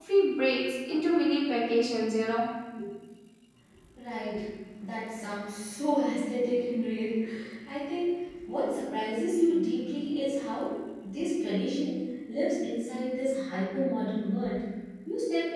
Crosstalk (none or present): none